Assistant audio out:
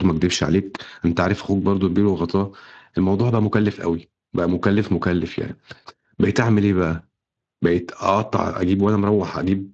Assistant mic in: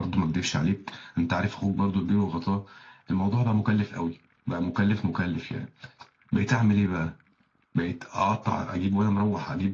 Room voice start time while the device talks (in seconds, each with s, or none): none